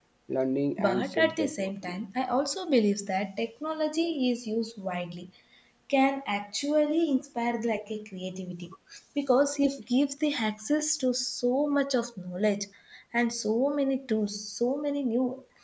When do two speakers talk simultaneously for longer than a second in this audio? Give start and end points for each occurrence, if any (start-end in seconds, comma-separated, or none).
0.8-2.0